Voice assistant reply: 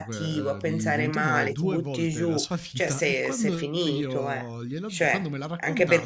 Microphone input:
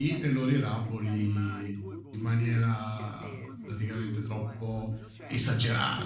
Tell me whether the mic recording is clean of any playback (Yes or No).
No